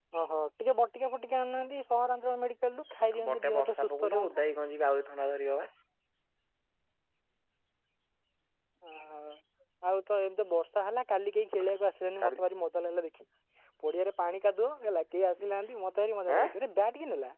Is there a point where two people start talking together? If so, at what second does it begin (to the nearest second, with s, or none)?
3 s